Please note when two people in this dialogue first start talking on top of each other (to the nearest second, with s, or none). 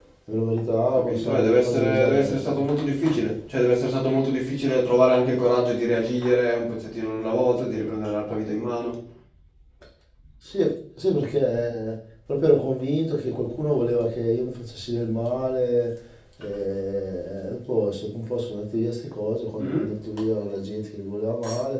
1 s